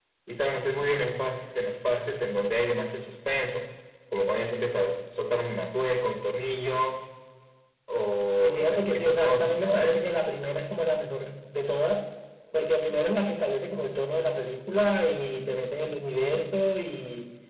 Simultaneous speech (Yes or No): Yes